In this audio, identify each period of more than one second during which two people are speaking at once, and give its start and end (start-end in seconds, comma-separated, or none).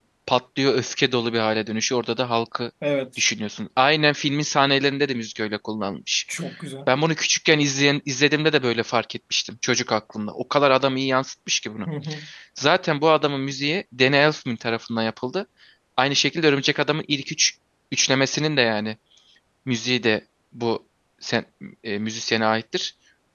none